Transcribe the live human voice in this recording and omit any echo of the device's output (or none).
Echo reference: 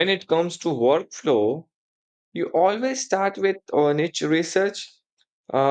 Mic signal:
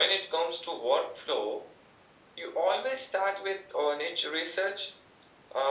none